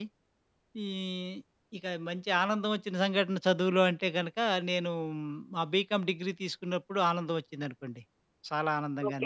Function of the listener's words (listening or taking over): taking over